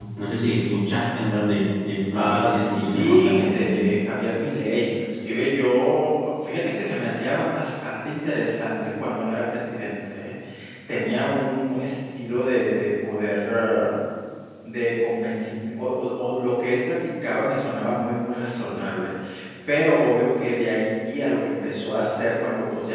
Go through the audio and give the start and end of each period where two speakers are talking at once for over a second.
2.2-3.9

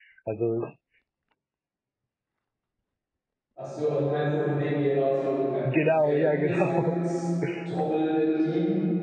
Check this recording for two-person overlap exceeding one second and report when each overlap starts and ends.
5.6-7.0

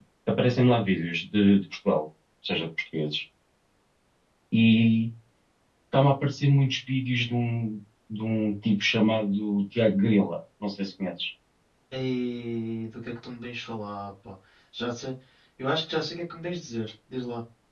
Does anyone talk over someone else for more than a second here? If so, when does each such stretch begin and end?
none

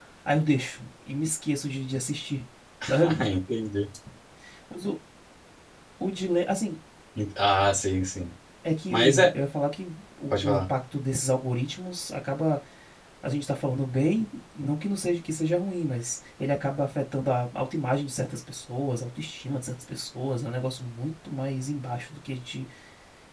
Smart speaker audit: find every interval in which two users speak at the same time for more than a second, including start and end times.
none

